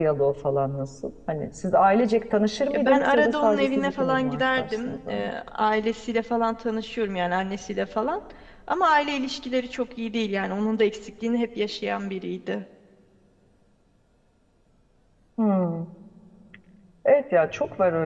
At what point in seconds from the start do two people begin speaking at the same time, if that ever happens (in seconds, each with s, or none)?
2.7 s